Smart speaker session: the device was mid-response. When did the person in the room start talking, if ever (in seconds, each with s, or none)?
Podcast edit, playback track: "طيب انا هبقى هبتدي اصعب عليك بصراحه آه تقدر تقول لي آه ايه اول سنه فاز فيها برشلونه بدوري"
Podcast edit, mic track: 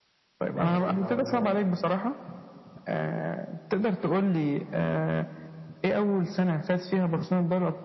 0.5 s